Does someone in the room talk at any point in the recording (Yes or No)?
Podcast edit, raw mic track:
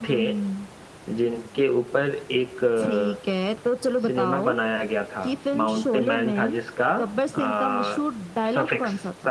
Yes